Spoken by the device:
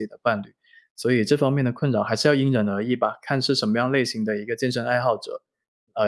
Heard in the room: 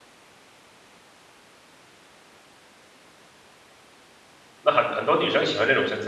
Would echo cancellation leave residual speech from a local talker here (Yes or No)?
Yes